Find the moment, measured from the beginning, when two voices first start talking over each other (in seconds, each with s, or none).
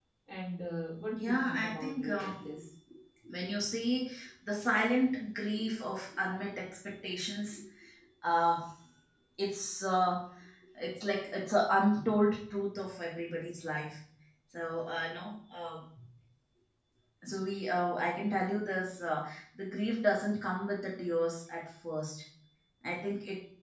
1.1 s